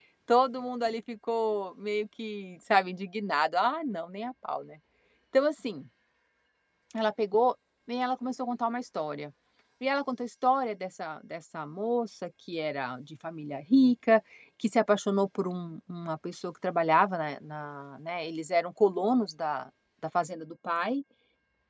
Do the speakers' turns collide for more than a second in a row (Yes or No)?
No